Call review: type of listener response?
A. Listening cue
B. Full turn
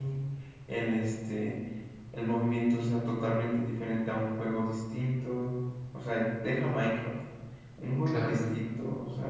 A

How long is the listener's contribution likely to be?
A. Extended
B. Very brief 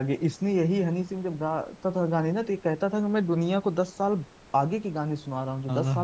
B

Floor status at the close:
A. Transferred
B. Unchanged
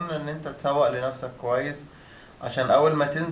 B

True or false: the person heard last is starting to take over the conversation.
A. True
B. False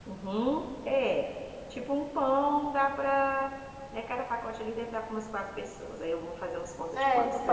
A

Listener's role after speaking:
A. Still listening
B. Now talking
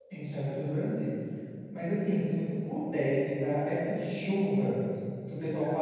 A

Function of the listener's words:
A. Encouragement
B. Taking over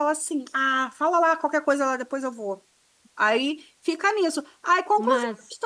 A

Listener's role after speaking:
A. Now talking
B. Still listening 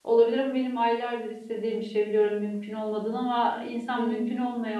B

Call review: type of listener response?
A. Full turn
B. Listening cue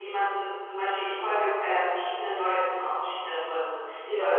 B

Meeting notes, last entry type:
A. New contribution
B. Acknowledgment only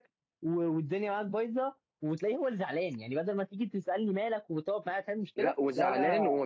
A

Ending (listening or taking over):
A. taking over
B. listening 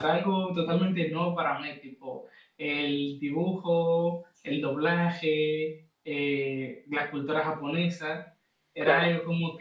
B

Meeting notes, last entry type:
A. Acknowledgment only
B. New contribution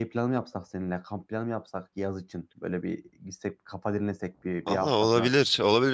B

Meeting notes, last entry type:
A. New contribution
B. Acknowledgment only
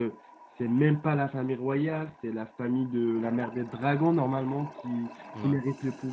B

